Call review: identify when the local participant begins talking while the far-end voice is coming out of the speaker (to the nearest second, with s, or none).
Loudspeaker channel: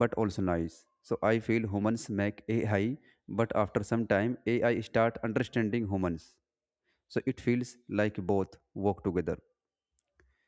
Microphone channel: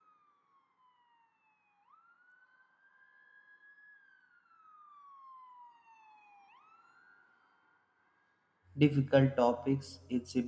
9 s